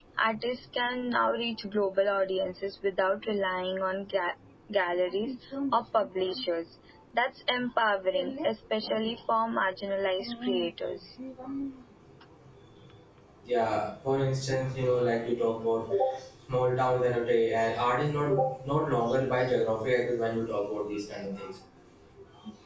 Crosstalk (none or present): none